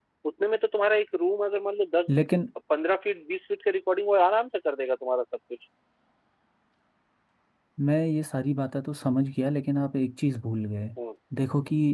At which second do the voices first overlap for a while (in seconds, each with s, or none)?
none